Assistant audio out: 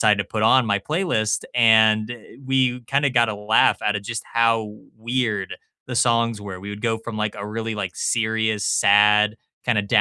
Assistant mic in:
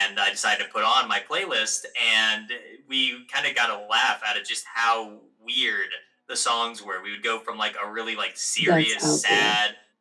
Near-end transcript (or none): that's out there,